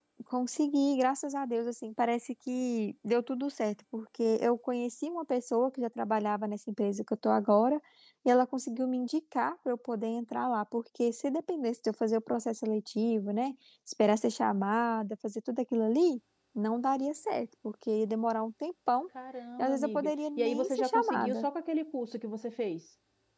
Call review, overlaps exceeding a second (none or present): present